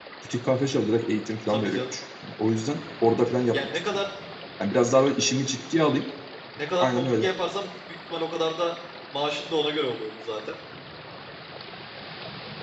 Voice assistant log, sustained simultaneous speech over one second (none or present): none